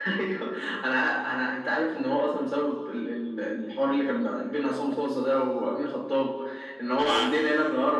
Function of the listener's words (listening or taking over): listening